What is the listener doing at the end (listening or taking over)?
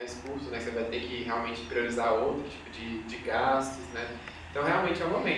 listening